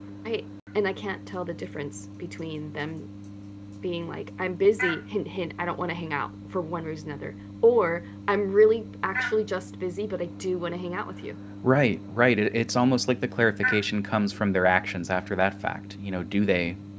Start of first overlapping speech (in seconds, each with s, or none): none